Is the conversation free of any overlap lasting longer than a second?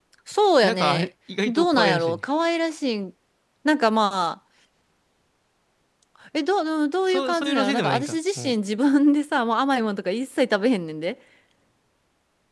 No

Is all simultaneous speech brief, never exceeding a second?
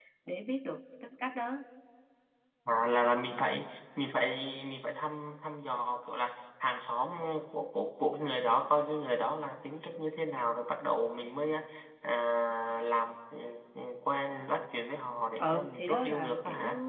No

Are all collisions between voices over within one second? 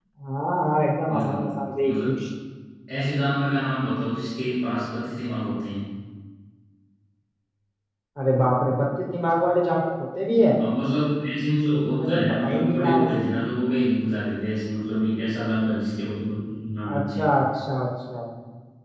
No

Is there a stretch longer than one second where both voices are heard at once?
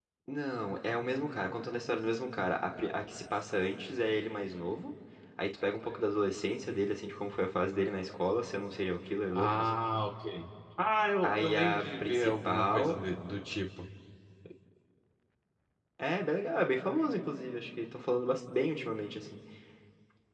Yes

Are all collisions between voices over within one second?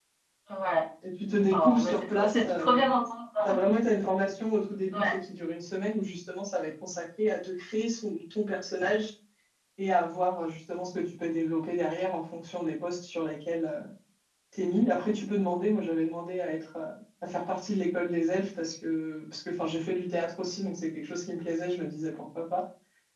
No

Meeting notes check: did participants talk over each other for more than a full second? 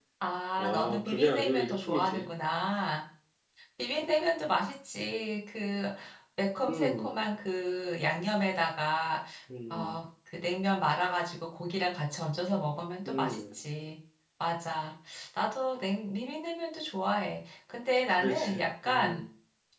Yes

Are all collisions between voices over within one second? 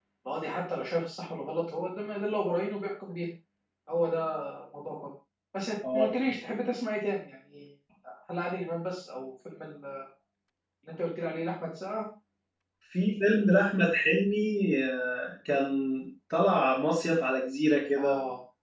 Yes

